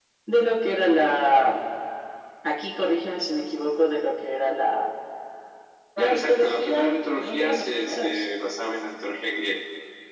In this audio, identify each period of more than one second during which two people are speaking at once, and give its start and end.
6.0-8.2

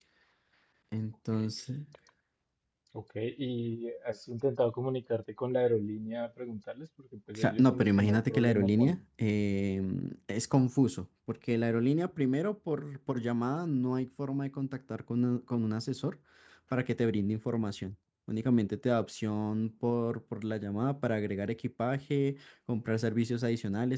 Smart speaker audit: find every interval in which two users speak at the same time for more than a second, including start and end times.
7.4-9.0

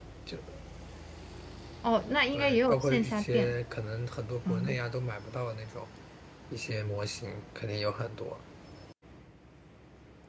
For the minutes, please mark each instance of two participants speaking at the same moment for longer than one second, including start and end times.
2.3-3.5

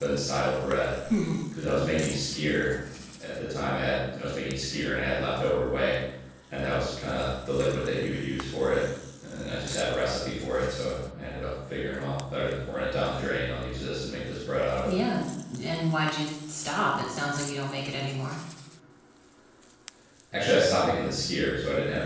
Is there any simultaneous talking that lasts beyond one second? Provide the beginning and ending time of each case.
none

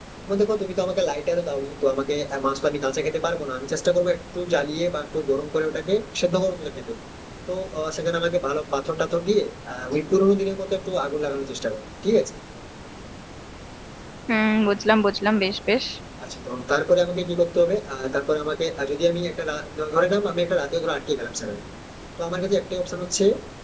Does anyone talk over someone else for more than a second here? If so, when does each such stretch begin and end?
none

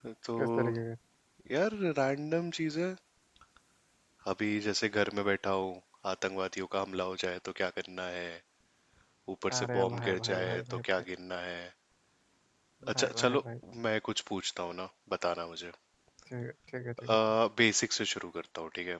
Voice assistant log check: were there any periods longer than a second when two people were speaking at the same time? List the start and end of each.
9.5-10.8

